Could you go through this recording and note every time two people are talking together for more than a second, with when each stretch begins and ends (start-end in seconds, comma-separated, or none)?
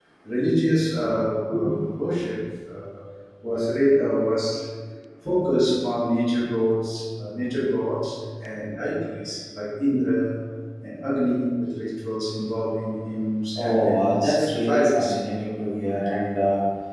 13.6-15.2